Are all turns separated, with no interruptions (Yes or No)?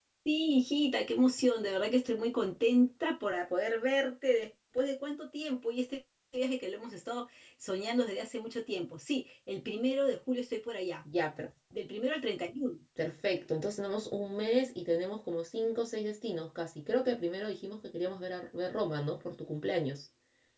Yes